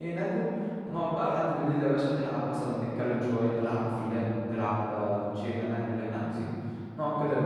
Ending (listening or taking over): taking over